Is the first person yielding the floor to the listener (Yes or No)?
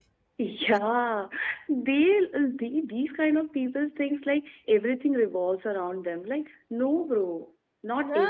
No